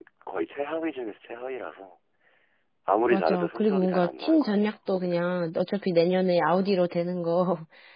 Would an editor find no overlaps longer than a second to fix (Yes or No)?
No